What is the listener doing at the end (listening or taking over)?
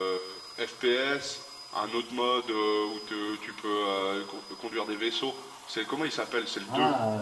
taking over